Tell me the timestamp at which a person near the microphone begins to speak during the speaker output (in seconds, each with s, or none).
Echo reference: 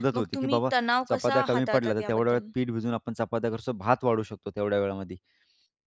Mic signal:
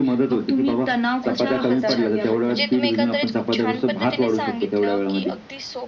1.2 s